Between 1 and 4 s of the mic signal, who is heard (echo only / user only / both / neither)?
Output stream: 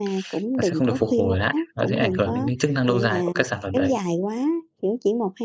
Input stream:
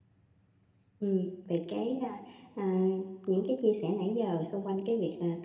user only